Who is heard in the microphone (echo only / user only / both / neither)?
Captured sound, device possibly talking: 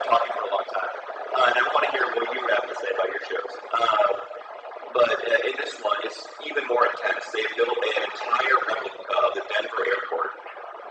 echo only